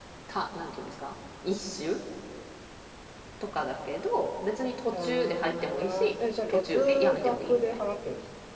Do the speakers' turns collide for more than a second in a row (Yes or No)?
Yes